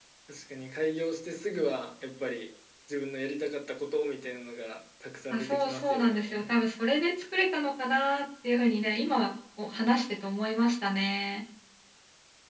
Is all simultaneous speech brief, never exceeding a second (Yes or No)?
No